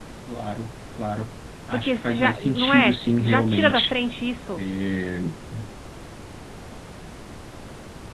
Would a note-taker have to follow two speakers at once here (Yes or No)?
Yes